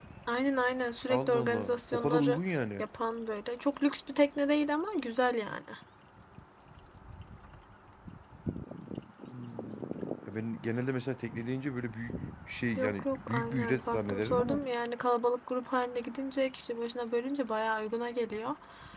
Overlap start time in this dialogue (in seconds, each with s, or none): 1.1 s